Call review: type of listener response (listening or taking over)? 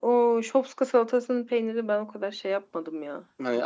taking over